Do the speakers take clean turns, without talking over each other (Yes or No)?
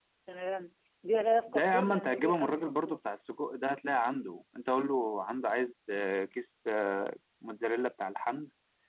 No